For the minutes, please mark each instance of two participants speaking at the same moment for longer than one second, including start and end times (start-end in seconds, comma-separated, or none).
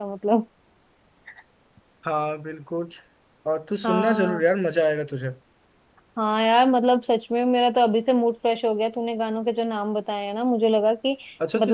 none